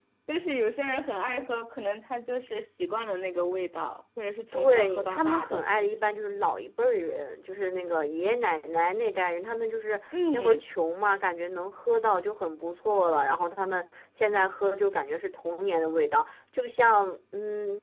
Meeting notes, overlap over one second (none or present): present